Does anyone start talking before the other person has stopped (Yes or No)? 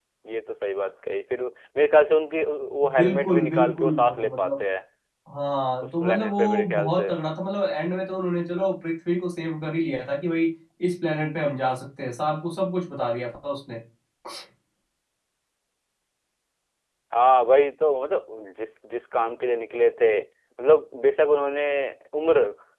Yes